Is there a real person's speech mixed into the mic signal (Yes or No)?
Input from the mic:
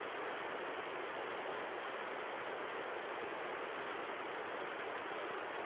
No